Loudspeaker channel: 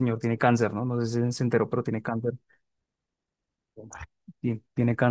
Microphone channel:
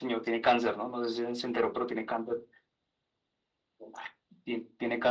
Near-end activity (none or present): none